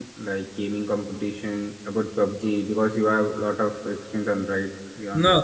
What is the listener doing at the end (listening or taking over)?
taking over